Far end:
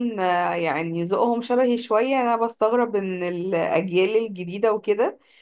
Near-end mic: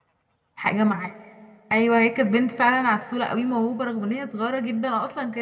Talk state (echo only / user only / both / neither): user only